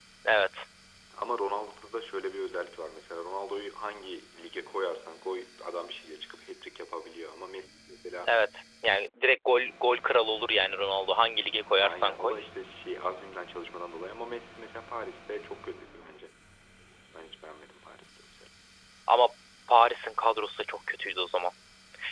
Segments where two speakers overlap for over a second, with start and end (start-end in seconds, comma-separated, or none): none